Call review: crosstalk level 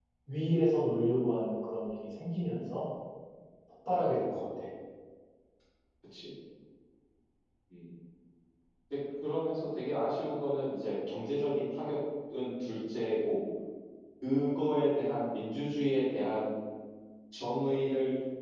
none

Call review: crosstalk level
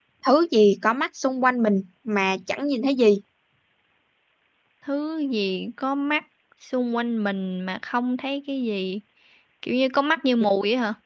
none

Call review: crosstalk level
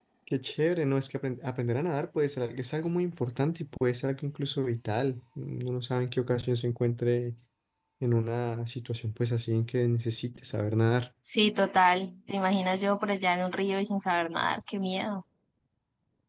none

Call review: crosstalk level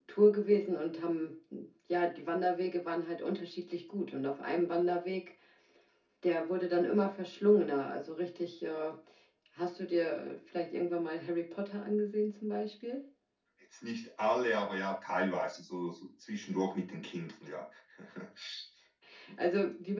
none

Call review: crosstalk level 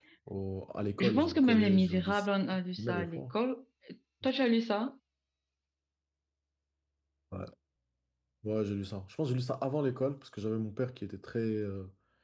present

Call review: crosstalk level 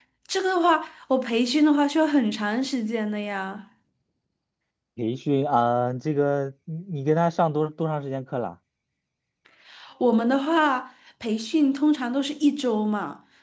none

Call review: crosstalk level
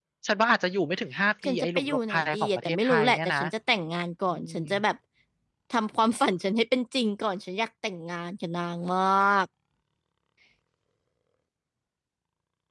present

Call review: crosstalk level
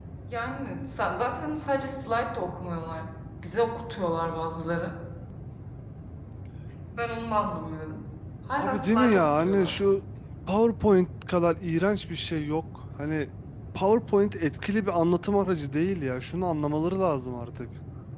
present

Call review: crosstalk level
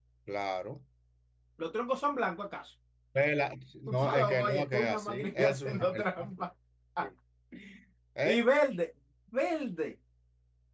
present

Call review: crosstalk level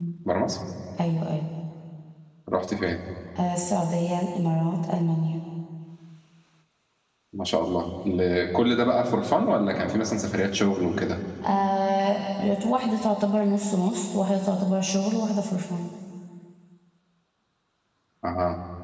none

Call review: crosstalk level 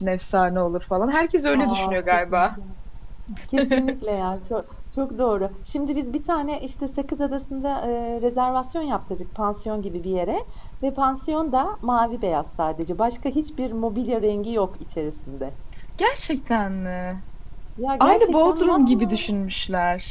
present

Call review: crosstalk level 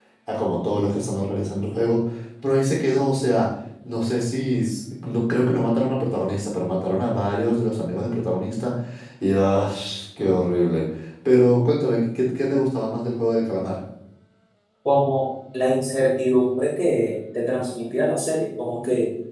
none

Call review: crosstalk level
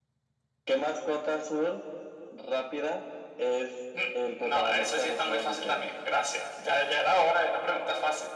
present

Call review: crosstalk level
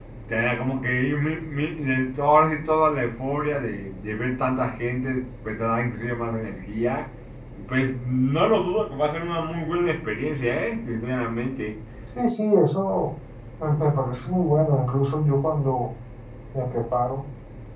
none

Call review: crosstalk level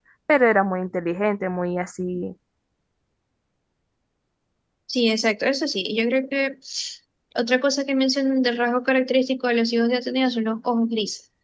none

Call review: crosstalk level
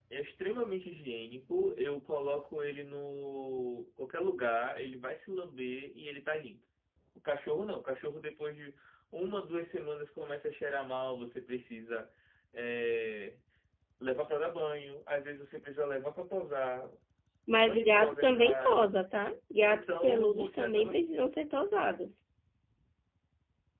present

